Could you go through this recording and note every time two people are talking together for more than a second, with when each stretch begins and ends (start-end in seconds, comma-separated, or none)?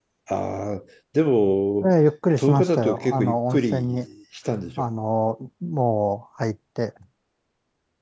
2.4-4.0